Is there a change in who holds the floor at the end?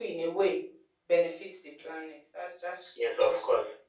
Yes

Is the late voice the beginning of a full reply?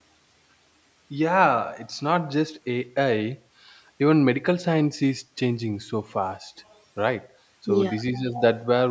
No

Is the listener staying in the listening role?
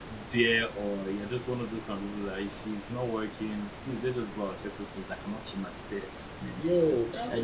No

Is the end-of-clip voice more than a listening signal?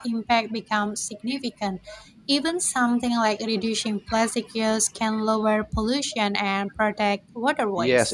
Yes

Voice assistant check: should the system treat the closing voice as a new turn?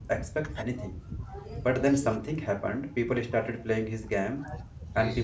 No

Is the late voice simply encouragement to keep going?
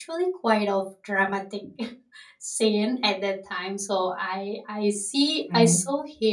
Yes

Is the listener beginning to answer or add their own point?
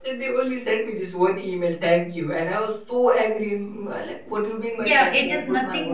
Yes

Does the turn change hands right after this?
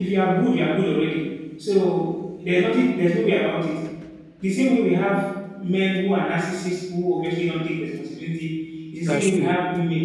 No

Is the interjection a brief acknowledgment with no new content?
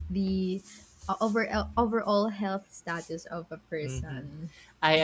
No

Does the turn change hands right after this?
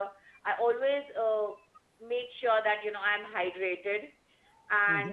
Yes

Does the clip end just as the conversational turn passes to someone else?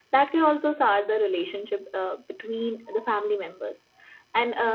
No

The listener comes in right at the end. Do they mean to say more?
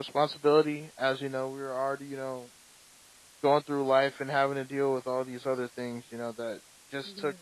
No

